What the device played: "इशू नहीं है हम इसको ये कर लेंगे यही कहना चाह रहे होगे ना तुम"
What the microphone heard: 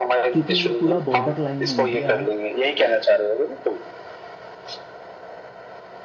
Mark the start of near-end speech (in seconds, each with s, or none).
0.3 s